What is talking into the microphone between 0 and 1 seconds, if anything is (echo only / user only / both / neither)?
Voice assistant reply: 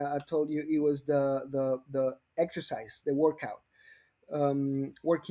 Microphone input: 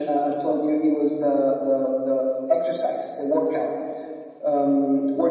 echo only